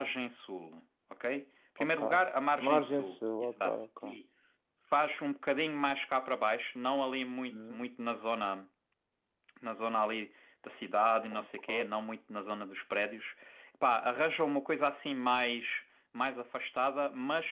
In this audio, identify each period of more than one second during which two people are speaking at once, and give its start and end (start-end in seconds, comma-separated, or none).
2.6-4.2